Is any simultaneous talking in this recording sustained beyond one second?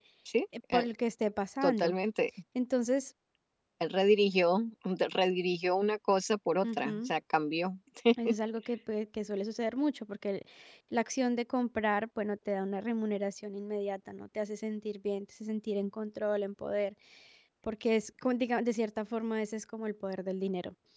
No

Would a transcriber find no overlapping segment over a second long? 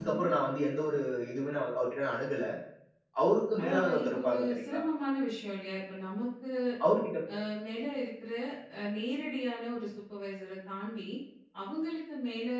No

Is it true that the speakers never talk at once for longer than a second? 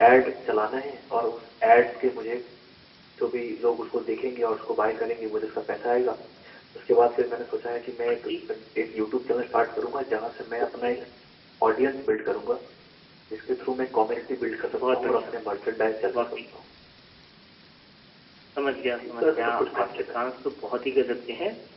No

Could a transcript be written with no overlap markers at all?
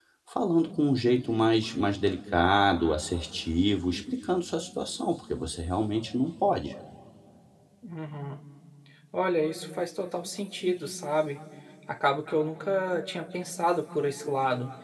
Yes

